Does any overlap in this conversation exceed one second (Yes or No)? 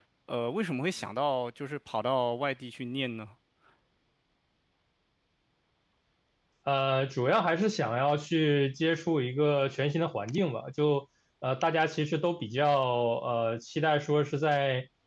No